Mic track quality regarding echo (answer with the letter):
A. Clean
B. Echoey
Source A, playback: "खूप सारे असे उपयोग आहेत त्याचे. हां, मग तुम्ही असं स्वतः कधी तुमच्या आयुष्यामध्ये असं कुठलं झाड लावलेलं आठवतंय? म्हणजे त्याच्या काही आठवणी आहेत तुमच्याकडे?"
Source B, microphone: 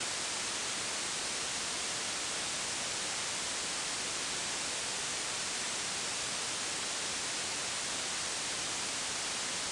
A